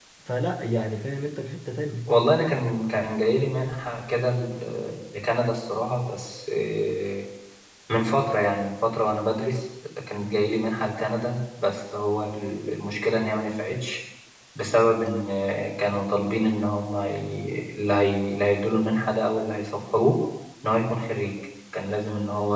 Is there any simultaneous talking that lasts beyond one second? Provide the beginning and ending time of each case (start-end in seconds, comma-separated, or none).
none